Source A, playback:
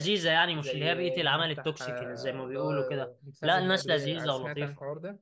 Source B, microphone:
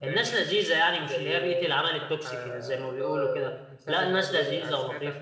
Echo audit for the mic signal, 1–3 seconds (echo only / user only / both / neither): echo only